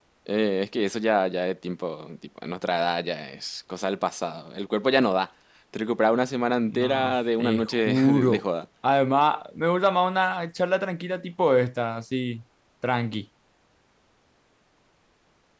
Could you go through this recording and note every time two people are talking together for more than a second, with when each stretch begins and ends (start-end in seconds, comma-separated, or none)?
6.7-8.4